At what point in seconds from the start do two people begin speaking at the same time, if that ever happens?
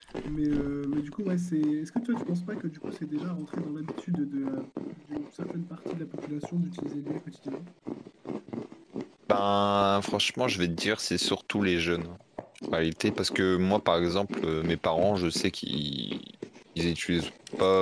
none

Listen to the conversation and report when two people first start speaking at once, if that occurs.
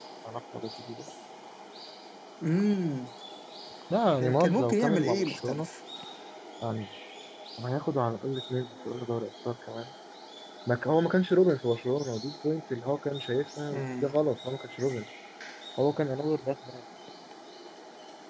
4.2 s

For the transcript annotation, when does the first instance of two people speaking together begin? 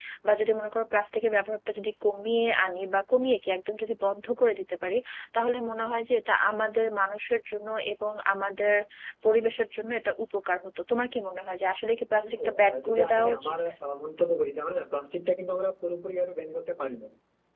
12.2 s

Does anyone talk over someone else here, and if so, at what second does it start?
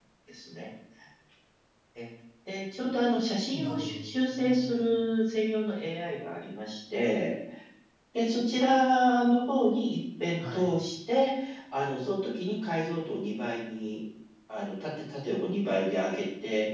3.5 s

